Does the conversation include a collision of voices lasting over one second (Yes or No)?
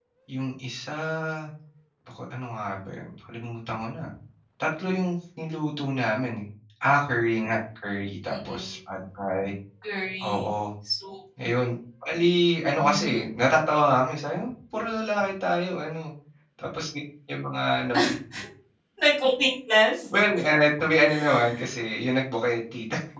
No